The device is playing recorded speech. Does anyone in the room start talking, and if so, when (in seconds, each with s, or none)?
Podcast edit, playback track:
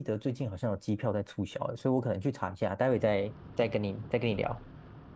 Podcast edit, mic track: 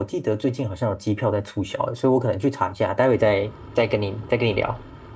none